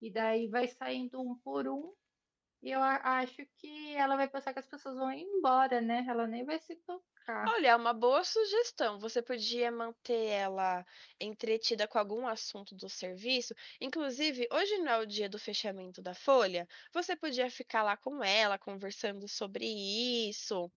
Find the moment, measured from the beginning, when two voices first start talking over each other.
none

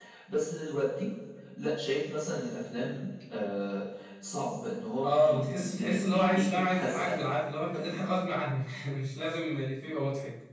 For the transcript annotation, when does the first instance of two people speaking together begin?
5 s

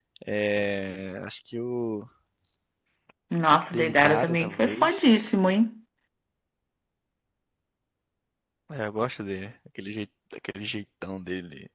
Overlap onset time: 4 s

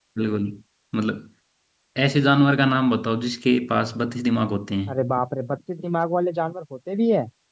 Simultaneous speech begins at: none

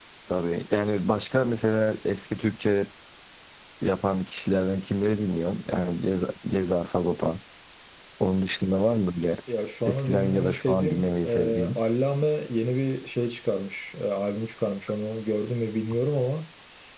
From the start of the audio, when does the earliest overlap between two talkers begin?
10 s

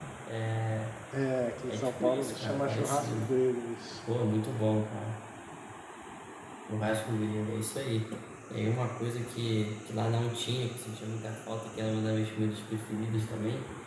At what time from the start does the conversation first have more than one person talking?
2 s

